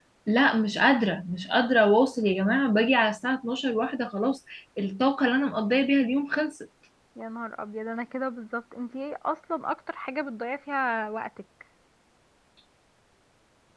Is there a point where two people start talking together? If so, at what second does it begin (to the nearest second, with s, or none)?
none